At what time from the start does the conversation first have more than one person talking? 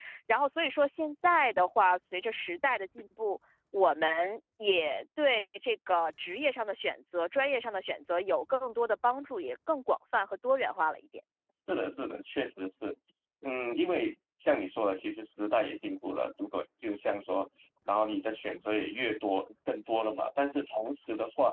none

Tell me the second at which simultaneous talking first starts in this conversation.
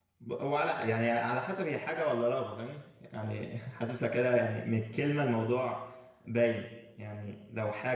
none

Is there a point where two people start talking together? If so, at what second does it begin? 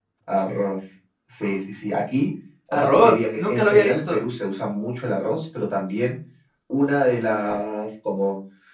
3 s

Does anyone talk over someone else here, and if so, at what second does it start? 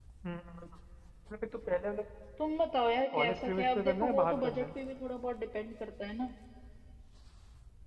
3 s

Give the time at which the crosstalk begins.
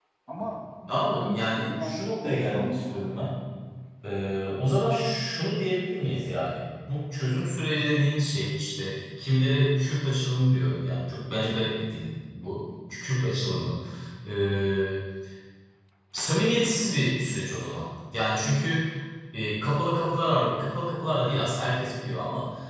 1 s

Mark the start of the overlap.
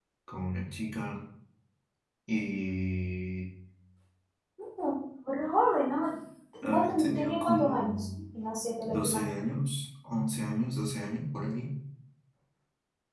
7 s

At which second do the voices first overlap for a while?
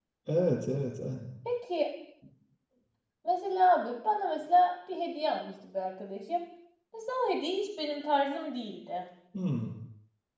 none

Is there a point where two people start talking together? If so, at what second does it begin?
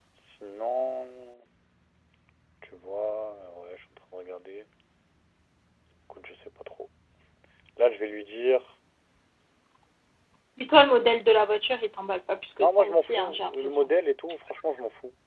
13 s

